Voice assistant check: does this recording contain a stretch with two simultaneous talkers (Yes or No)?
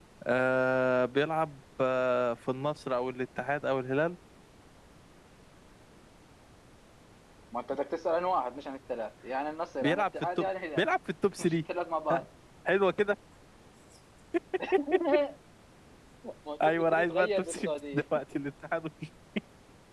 Yes